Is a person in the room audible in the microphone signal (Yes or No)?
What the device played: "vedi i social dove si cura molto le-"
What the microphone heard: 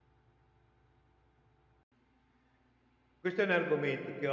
Yes